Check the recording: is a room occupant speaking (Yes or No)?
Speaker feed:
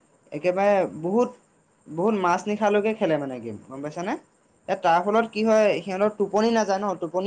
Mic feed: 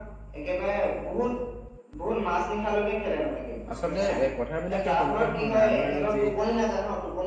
Yes